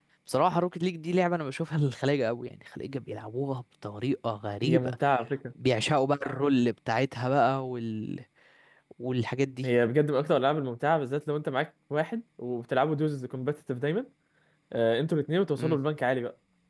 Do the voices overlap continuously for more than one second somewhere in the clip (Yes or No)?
No